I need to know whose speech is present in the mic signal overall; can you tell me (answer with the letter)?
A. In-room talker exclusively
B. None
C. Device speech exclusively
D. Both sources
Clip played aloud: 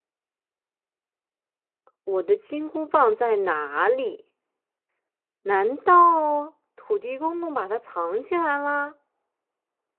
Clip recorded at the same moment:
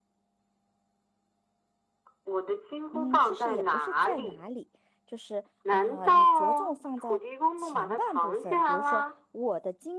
D